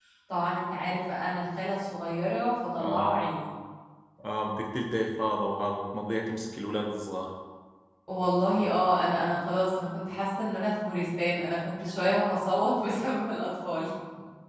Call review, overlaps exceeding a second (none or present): none